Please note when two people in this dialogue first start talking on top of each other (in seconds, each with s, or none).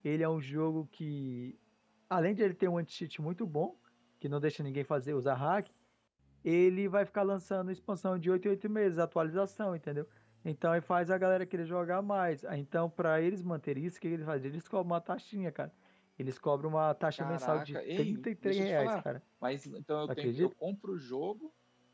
17.2 s